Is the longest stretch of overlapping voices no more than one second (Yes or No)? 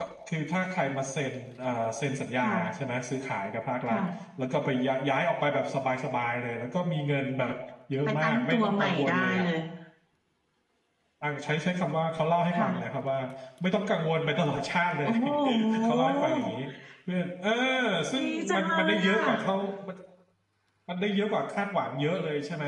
No